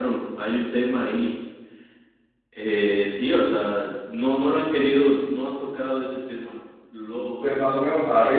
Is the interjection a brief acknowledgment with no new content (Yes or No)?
No